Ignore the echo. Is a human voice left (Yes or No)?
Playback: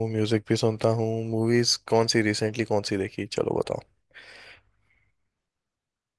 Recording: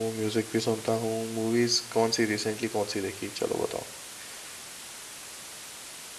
No